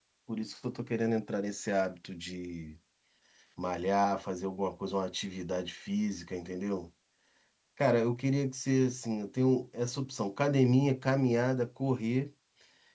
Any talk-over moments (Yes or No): No